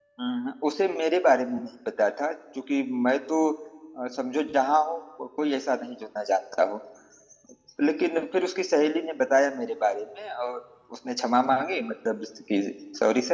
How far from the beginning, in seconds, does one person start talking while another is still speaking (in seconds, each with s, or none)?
none